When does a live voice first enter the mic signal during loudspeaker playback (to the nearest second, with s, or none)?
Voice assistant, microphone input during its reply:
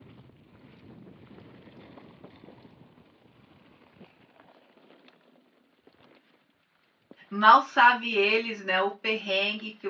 7 s